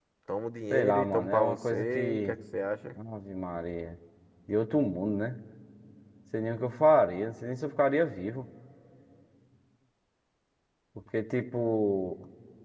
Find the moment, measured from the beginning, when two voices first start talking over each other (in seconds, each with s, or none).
0.7 s